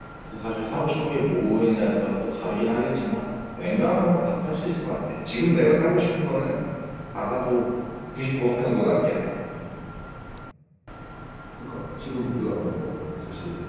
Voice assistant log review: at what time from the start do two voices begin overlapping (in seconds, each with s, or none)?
none